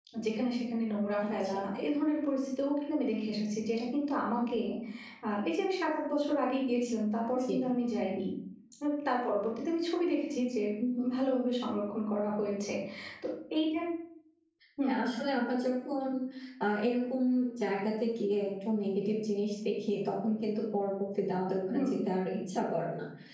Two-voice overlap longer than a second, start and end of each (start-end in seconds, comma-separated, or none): none